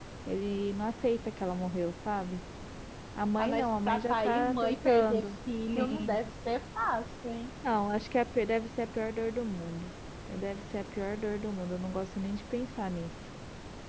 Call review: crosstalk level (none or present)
present